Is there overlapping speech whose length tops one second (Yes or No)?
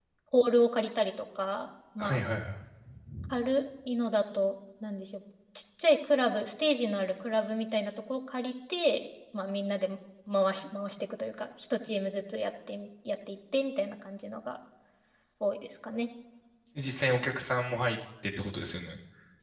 No